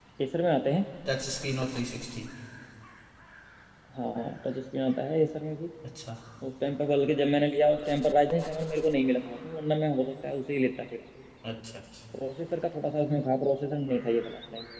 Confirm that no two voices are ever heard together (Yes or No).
Yes